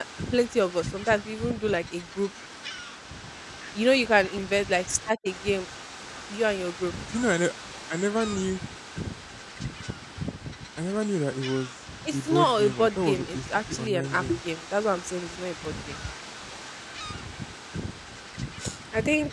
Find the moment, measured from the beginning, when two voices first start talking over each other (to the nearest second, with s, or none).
12 s